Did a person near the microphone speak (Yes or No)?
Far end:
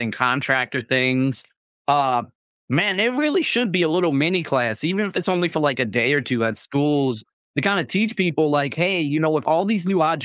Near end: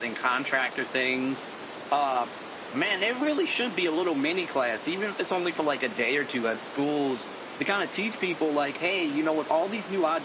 No